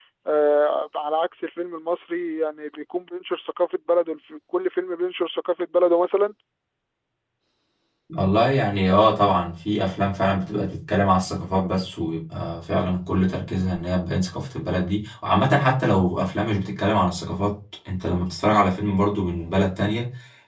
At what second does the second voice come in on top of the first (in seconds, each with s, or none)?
none